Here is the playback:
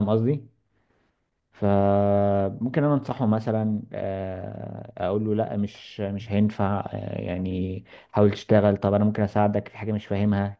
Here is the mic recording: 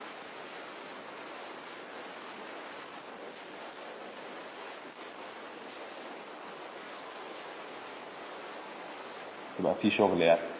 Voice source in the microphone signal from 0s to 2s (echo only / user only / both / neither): neither